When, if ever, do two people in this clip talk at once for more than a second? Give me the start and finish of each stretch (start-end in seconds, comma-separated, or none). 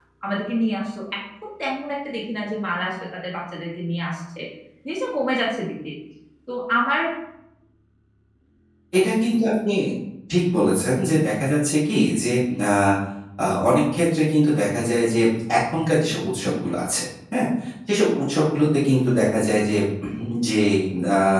none